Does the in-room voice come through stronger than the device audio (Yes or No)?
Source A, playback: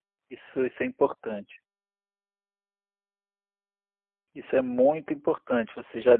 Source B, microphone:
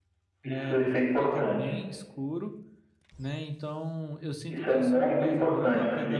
No